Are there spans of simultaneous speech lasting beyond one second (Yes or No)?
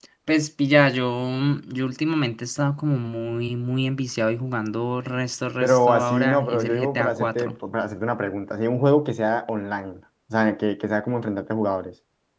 Yes